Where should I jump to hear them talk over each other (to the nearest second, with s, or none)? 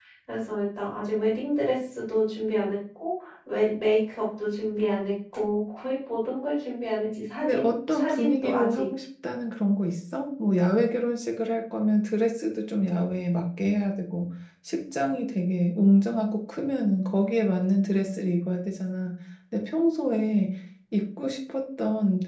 7 s